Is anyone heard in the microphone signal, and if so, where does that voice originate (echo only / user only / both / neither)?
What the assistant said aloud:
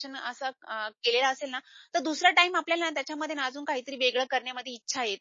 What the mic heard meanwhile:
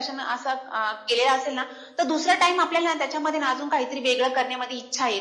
echo only